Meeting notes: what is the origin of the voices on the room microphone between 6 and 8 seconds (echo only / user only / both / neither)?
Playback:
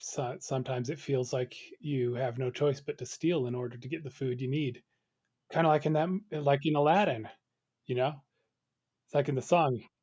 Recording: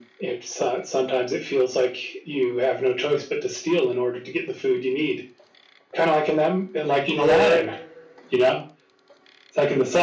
both